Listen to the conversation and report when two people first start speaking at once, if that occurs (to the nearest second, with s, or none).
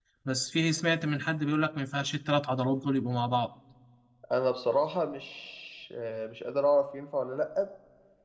none